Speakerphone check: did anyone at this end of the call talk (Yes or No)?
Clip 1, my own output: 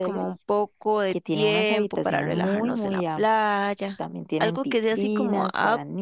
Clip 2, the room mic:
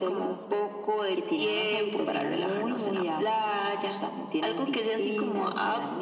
No